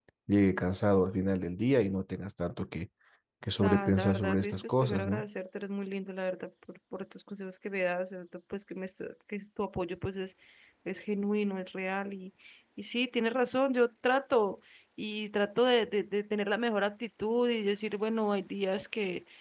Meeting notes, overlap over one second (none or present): present